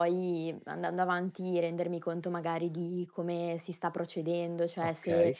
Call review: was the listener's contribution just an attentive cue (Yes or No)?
Yes